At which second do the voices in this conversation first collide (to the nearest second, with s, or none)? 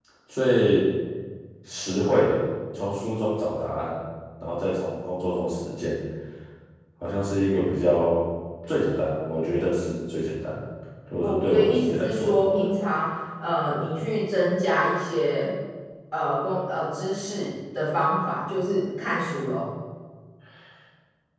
11 s